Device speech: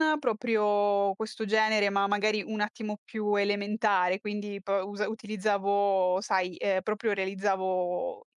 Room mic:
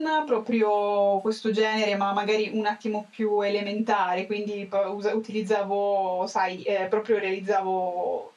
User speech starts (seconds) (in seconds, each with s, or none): none